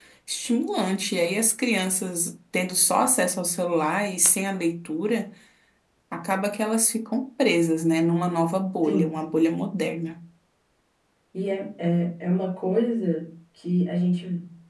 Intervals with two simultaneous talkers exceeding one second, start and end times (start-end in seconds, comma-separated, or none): none